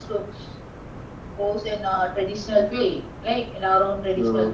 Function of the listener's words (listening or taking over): listening